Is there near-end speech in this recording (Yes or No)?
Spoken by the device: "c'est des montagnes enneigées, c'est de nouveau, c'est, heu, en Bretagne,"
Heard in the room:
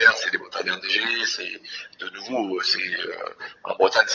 No